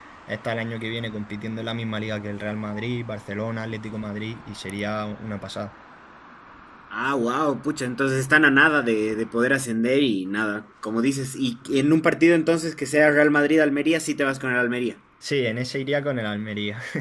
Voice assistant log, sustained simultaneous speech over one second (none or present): none